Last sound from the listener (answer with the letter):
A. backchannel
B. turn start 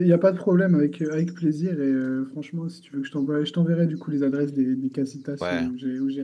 A